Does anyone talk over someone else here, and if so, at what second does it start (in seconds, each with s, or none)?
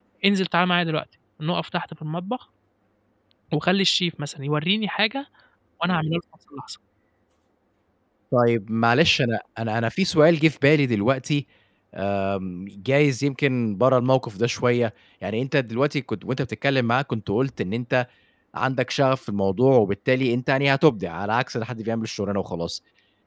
none